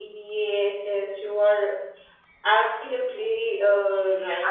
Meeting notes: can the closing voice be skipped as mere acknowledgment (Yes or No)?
No